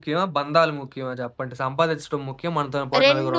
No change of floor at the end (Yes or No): No